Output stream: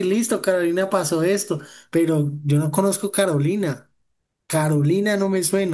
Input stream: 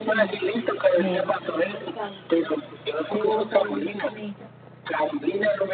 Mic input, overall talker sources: both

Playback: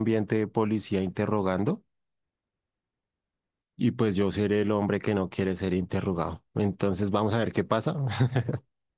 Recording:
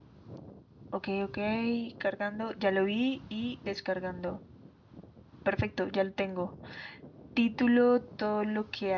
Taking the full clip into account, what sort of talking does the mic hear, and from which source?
user only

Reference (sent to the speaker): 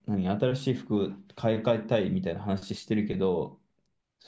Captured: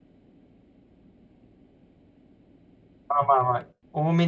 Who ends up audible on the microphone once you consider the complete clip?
user only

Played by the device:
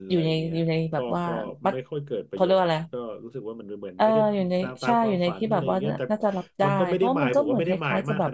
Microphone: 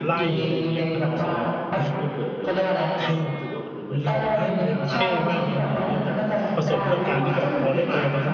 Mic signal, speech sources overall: both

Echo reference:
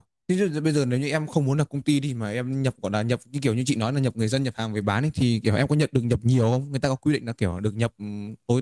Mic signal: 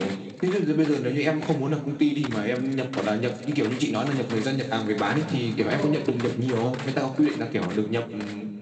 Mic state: both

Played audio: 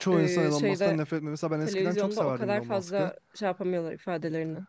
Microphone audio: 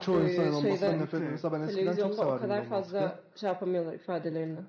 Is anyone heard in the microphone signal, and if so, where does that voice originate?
both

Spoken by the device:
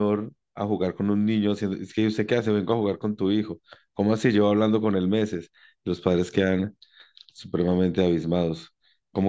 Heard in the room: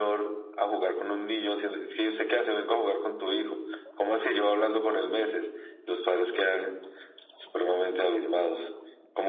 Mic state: echo only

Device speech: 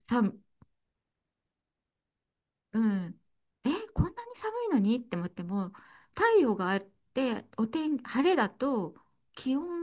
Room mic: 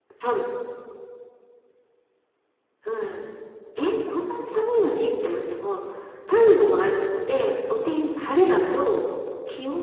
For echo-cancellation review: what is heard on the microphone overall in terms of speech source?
echo only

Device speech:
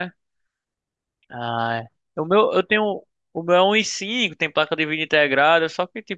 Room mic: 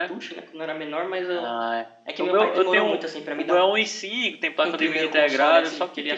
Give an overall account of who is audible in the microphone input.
both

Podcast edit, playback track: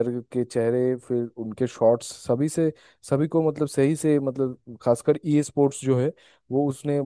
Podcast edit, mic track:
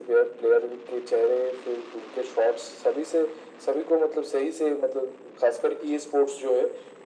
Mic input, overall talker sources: echo only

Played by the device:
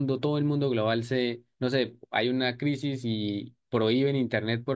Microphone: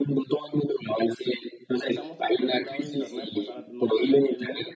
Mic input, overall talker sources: both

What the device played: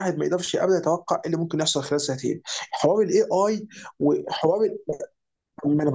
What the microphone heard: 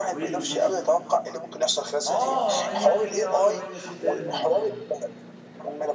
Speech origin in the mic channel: both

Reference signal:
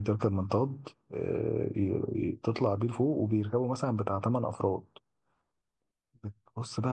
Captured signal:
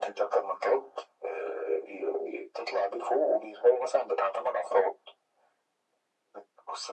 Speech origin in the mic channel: echo only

